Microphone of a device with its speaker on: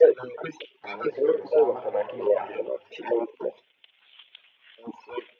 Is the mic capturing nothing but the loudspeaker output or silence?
No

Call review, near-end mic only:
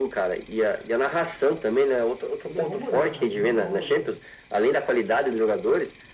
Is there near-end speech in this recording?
Yes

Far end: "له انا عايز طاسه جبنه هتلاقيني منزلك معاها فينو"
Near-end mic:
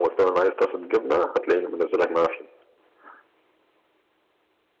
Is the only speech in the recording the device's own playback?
Yes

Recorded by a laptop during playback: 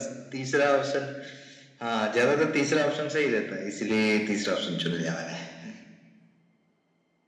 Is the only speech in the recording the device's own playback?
Yes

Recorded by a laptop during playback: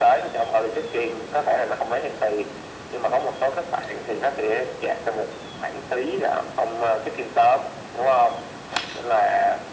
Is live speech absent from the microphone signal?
Yes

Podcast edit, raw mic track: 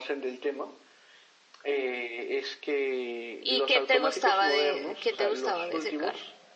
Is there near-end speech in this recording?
Yes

